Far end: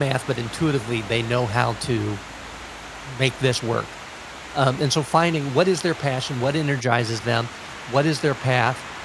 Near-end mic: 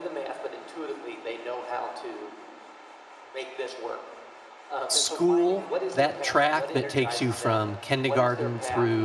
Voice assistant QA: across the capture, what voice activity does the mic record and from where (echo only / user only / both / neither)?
both